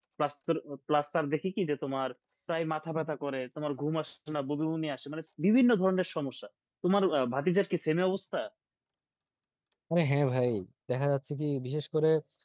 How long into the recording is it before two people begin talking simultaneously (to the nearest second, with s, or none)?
none